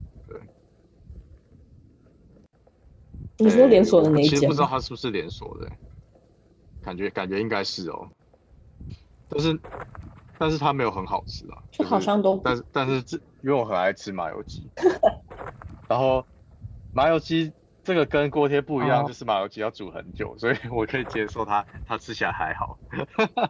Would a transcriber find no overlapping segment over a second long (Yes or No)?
No